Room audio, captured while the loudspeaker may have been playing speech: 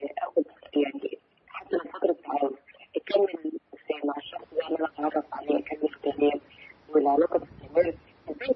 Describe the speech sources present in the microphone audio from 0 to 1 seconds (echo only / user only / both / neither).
echo only